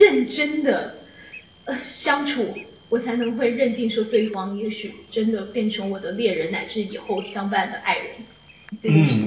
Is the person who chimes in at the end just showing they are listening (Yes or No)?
No